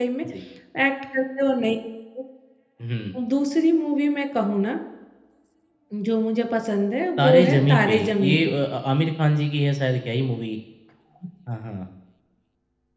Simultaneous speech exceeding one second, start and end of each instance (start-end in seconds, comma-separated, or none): 7.2-8.5